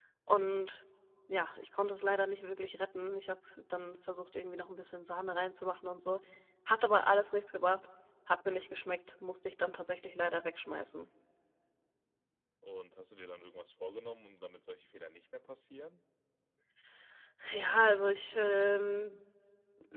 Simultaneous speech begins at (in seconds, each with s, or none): none